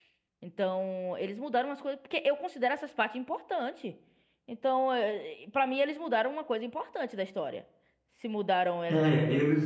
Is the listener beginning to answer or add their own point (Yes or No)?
Yes